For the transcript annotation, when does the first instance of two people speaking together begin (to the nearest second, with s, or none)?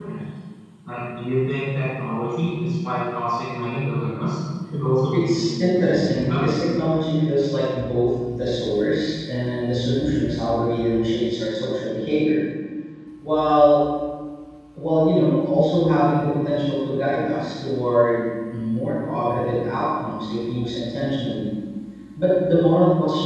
5 s